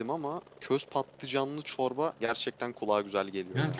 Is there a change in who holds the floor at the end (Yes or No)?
Yes